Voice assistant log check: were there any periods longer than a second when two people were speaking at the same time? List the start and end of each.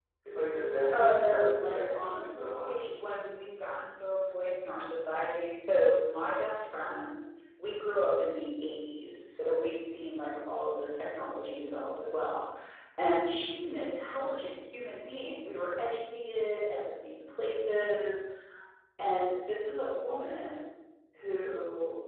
0.9-2.9

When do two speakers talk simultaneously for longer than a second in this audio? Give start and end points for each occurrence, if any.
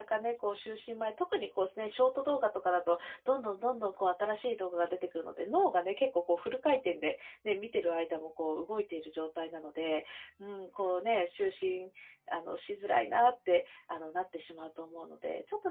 none

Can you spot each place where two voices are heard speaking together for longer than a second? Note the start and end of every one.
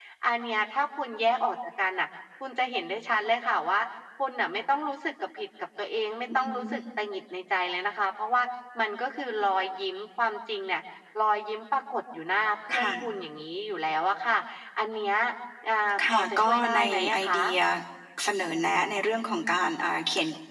16.1-17.4

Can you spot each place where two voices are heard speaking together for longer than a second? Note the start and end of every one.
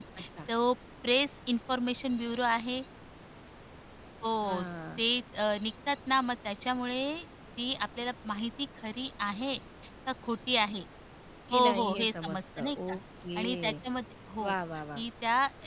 11.5-13.0

